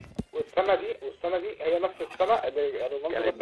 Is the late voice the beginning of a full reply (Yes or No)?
Yes